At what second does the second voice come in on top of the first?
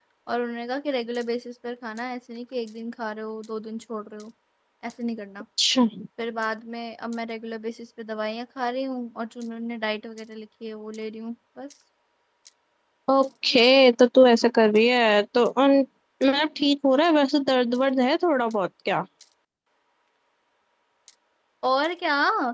none

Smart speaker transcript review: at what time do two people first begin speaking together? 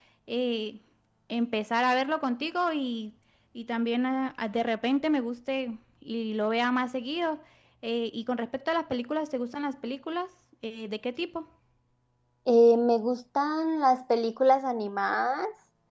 none

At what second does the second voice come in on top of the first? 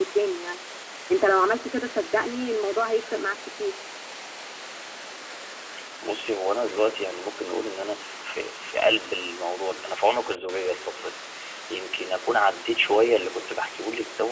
none

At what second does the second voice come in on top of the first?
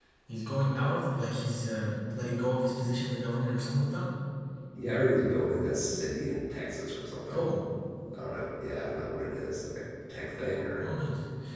none

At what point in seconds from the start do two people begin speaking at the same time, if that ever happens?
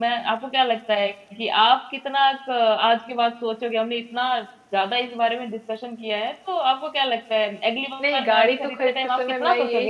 8 s

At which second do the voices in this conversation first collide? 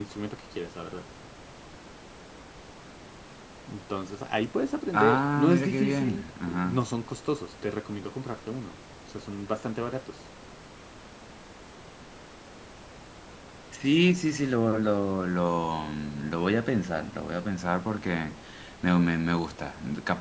5 s

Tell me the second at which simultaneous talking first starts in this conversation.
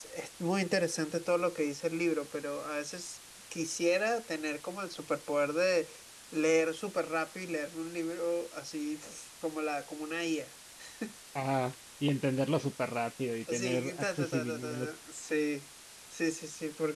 13 s

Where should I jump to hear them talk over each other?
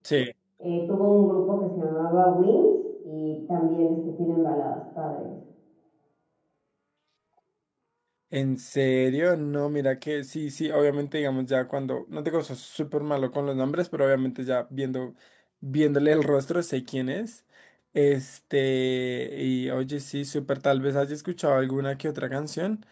none

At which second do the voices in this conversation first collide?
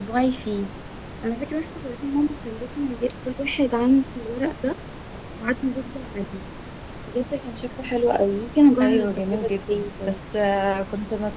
9 s

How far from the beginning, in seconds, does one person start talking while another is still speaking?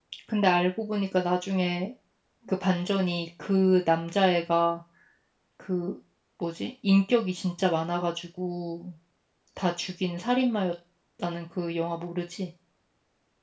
none

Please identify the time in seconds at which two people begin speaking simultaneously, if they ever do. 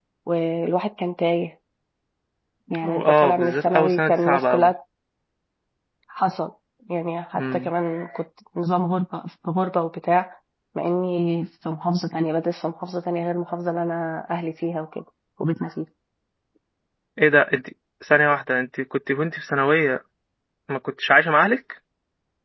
3 s

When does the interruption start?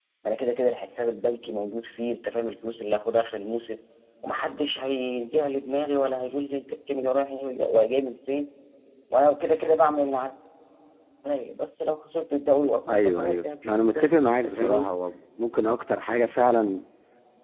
13 s

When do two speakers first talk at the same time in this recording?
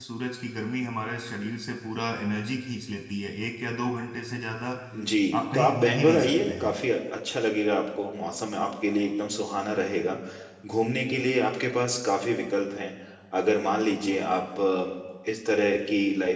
6 s

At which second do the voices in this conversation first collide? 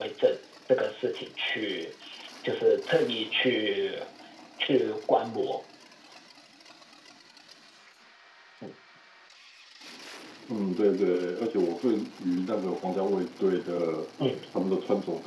none

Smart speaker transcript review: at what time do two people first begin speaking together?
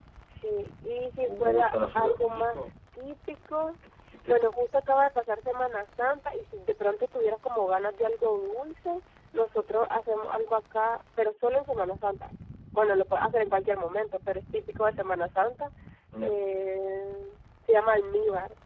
1 s

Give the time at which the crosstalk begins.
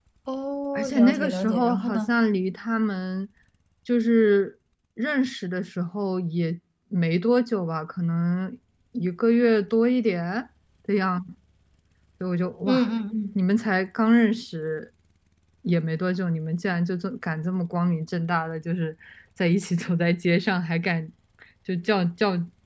1 s

